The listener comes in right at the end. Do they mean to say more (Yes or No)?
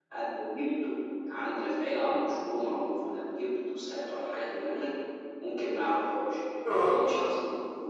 No